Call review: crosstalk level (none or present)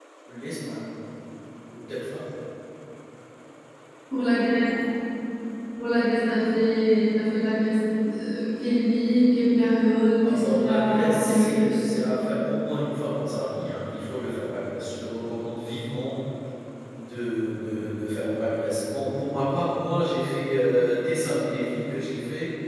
present